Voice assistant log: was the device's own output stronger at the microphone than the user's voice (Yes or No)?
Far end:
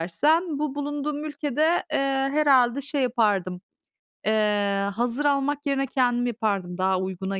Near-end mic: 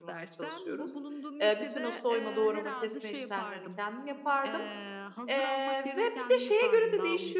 No